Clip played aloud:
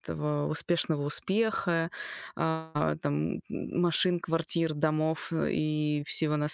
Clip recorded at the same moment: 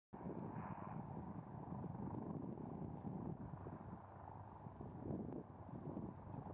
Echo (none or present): none